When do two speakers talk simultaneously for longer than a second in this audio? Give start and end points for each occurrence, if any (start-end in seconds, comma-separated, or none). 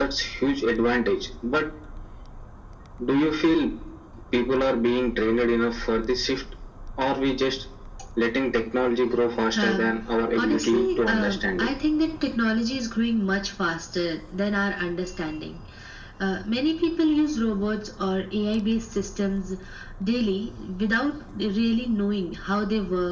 10.4-11.7